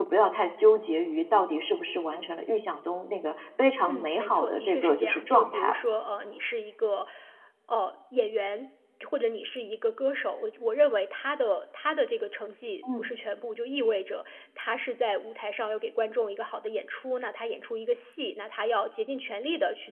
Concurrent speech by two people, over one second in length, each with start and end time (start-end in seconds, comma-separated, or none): 3.9-5.8